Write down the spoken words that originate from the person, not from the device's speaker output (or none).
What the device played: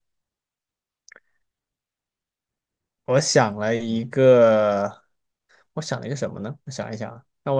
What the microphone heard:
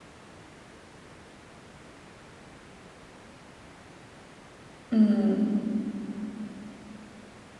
嗯